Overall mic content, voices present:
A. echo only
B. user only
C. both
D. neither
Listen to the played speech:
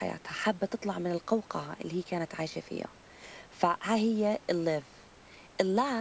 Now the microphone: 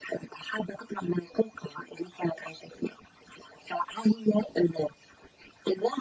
A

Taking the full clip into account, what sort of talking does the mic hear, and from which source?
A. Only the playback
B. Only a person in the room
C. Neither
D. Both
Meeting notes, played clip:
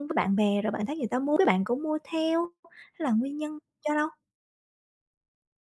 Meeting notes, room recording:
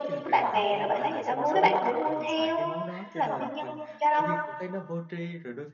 D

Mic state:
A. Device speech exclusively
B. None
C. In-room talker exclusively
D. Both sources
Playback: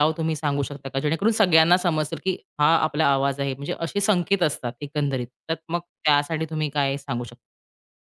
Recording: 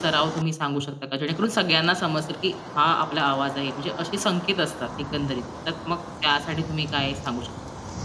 A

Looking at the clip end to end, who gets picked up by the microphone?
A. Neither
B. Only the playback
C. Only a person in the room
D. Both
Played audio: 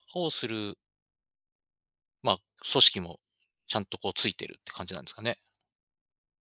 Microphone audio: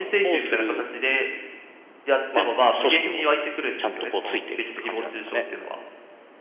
D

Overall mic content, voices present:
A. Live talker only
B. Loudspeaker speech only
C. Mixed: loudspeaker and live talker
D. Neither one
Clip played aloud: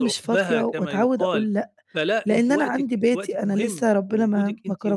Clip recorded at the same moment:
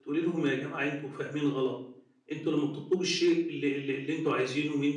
A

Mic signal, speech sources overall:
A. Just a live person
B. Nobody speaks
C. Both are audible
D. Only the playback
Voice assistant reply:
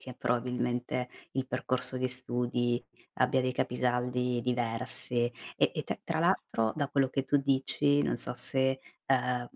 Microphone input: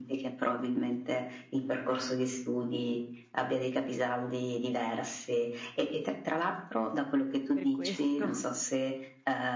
C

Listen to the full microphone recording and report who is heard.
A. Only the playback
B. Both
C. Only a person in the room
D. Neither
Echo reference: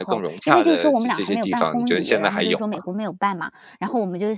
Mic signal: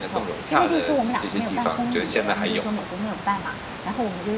A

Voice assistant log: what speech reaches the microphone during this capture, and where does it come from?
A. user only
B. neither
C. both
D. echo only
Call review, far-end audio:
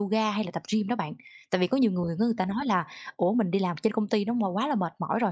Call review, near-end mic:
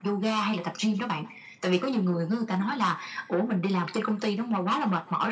D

